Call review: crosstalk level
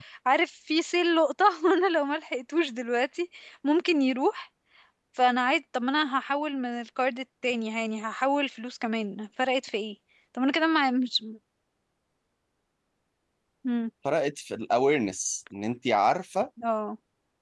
none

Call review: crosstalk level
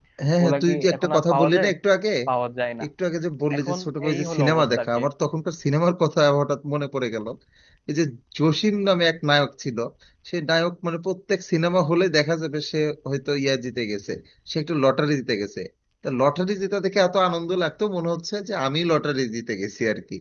present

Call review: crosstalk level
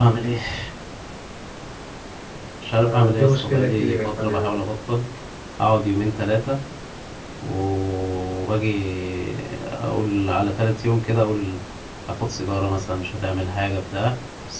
present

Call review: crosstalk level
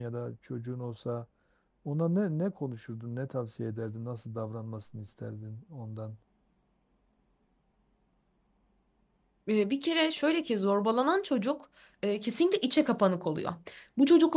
none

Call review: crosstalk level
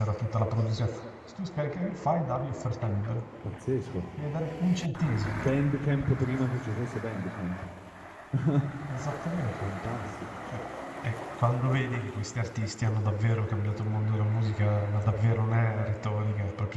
none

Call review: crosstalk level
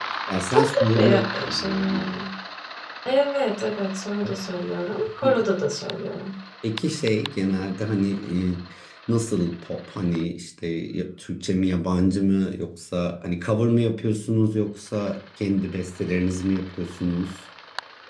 present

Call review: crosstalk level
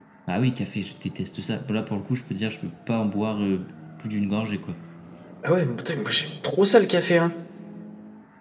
none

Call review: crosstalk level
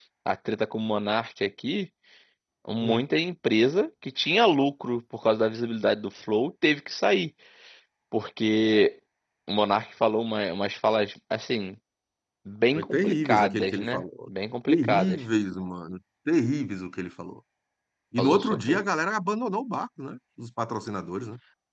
present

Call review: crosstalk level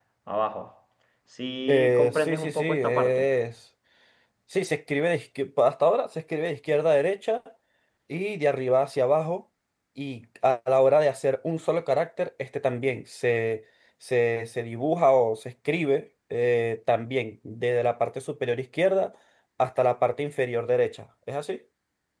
present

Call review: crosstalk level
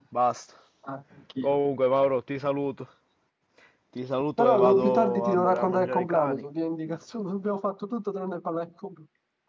present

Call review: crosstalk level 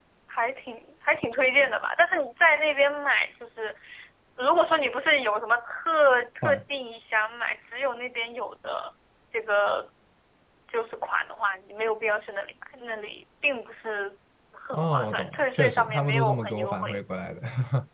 present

